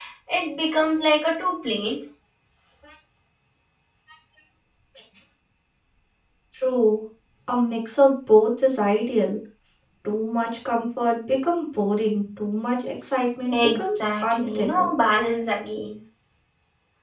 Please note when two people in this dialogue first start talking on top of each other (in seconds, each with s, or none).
13.4 s